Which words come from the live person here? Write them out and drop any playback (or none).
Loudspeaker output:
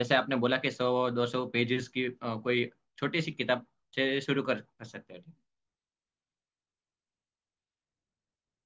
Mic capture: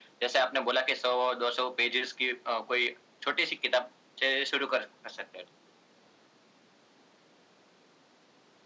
none